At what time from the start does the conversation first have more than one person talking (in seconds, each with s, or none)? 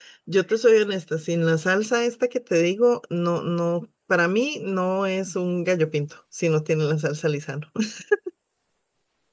none